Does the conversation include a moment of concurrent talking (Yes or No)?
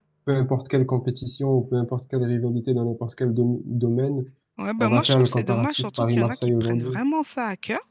Yes